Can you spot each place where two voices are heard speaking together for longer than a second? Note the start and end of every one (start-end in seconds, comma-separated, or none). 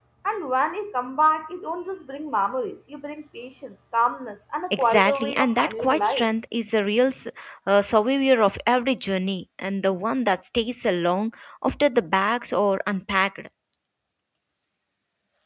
4.7-6.3